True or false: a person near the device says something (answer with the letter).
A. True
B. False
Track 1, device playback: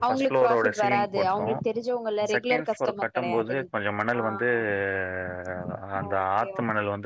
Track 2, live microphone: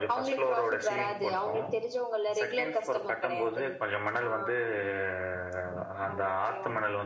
B